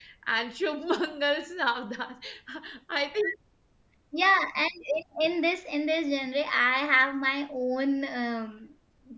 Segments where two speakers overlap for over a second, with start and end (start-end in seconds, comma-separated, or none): none